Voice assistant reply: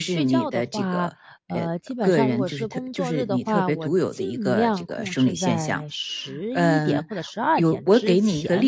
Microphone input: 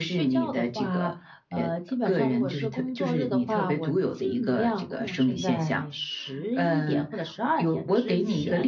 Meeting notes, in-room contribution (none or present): none